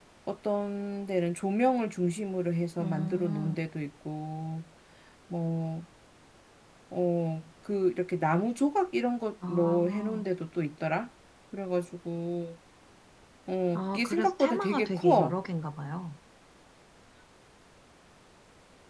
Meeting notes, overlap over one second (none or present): present